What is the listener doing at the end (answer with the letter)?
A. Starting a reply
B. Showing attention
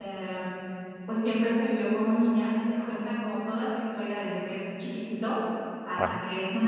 B